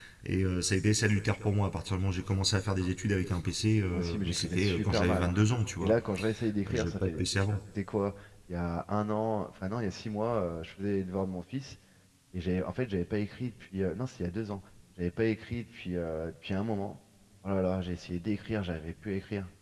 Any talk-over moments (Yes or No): Yes